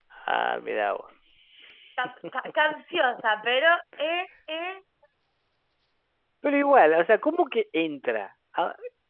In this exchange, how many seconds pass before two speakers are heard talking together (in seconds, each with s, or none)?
none